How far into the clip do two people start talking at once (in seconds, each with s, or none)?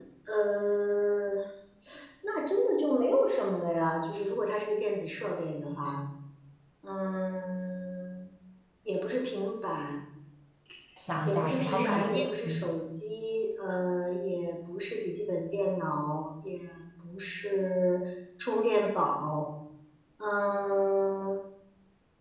11.2 s